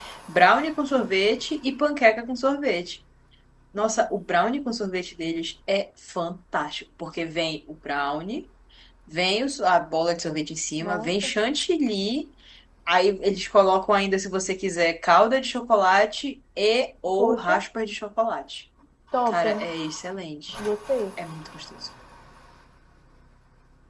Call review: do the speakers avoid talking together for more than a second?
Yes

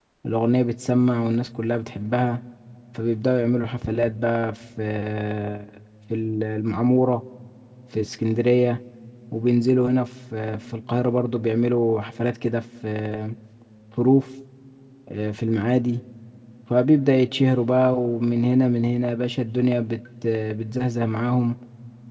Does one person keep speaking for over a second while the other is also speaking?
No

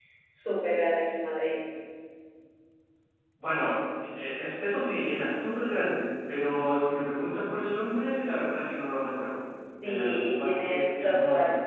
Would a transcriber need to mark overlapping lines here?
Yes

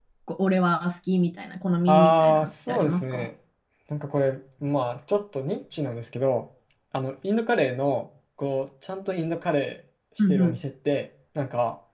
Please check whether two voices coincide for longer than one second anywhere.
Yes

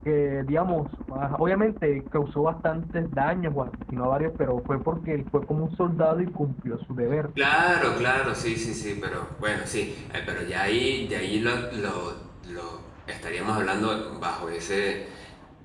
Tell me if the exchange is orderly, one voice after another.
Yes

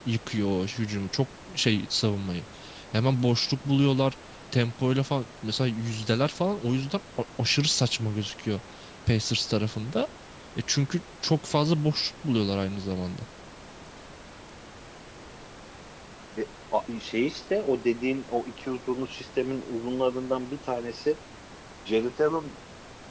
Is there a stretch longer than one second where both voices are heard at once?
No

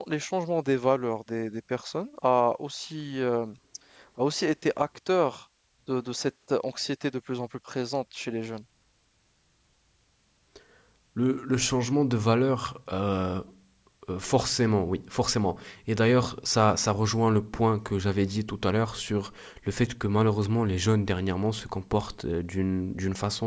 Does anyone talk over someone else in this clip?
No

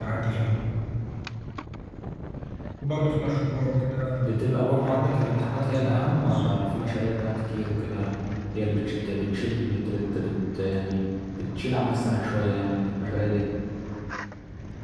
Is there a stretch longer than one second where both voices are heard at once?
Yes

